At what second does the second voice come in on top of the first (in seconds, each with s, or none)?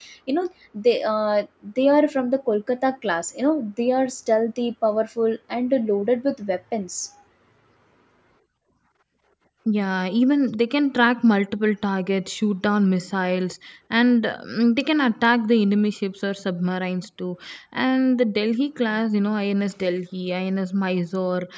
none